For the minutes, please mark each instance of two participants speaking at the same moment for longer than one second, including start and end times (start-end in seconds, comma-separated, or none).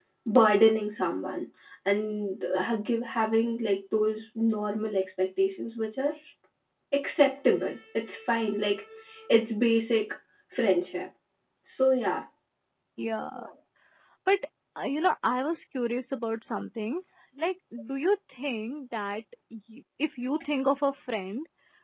none